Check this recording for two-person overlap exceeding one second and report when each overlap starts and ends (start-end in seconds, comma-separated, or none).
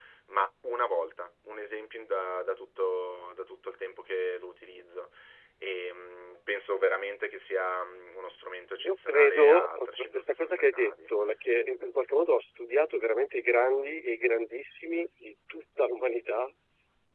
8.8-11.1